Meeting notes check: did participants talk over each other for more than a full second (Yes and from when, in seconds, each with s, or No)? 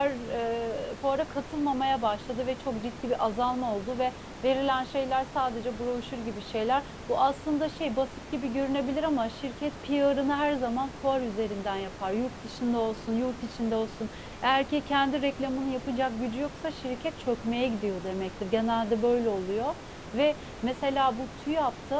No